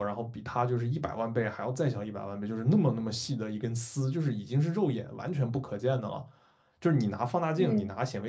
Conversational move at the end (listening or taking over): listening